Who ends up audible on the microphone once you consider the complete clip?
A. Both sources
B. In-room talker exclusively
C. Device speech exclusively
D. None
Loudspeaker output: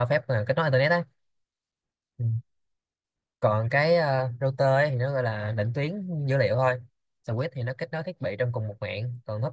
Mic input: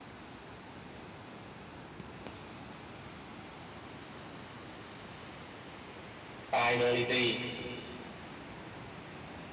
B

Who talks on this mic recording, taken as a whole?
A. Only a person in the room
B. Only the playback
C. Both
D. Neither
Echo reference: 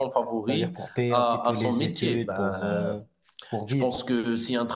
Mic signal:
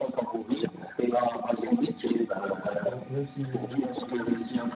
C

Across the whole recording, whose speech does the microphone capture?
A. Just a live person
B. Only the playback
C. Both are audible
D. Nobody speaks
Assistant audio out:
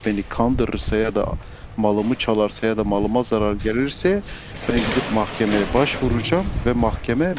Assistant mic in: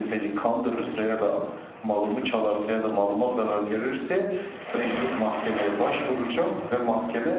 B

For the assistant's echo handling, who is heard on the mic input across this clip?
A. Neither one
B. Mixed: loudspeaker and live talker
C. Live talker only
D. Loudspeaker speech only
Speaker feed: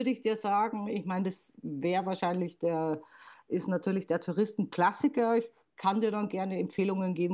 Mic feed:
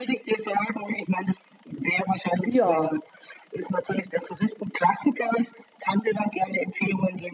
B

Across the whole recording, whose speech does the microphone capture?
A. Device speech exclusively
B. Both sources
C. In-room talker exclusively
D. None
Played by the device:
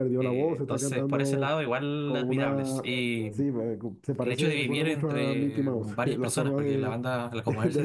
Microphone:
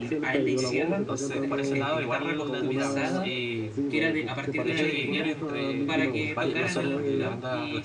B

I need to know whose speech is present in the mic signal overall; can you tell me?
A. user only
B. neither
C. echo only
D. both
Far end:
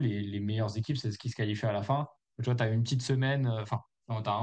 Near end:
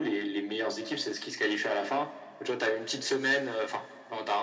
C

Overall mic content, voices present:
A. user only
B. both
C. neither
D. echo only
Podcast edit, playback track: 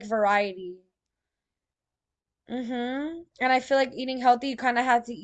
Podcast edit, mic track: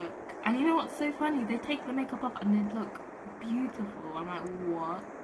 A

